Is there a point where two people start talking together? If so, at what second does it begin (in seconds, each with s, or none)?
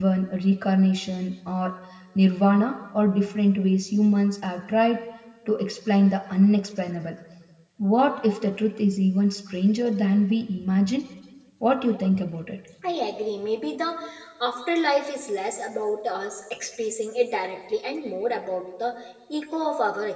none